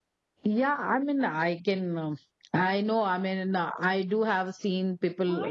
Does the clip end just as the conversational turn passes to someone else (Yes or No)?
Yes